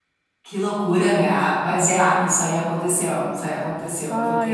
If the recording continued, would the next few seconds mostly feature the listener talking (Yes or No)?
Yes